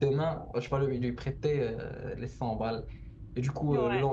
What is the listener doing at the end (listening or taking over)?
listening